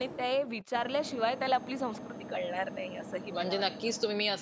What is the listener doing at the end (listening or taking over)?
taking over